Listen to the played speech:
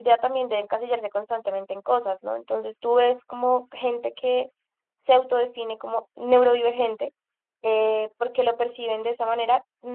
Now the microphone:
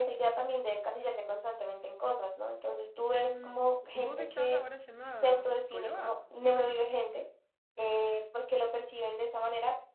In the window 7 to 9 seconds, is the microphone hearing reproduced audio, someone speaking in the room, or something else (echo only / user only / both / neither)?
echo only